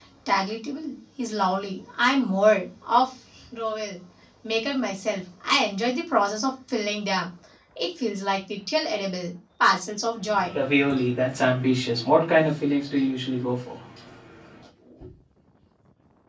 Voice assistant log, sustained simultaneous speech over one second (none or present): none